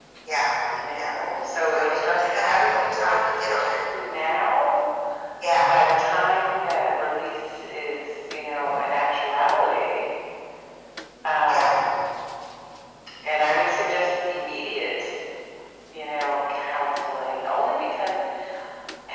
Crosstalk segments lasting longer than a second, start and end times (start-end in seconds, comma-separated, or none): 1.7-3.8